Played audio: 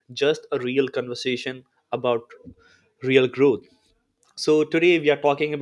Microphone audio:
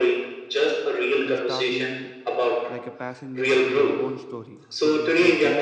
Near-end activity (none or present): present